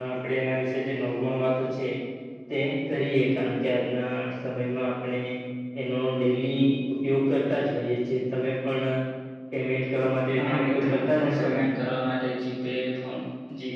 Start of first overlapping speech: 10.4 s

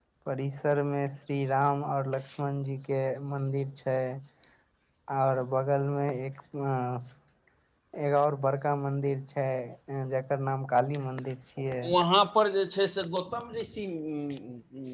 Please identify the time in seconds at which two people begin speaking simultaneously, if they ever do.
none

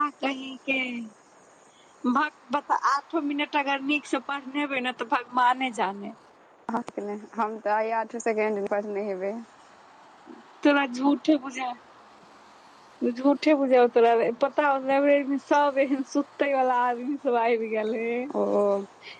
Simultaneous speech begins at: none

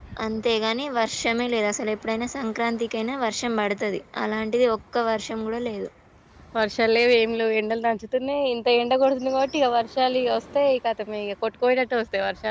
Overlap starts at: none

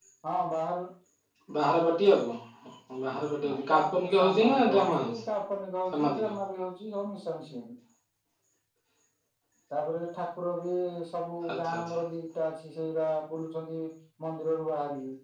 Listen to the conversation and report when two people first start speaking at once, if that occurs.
3.5 s

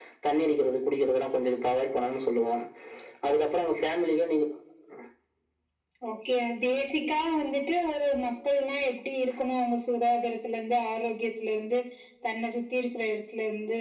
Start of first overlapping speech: none

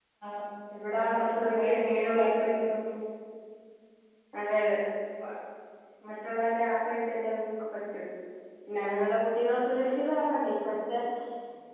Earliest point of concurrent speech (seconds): 1.0 s

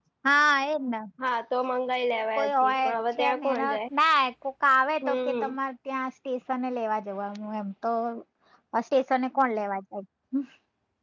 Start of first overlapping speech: 2.3 s

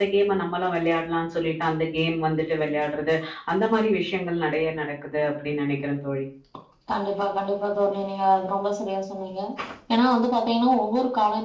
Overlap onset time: none

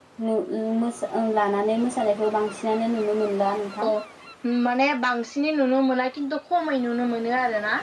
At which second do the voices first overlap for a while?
none

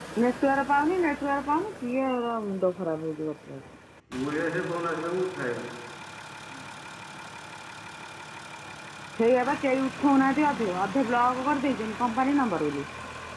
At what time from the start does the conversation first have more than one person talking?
none

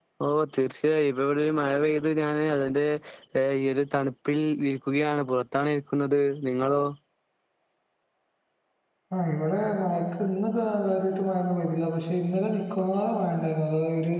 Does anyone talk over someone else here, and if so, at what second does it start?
none

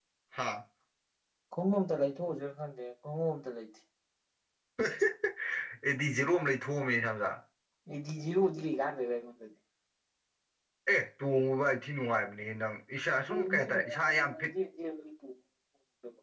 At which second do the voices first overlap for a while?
13.3 s

